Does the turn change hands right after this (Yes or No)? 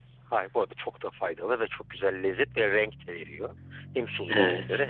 No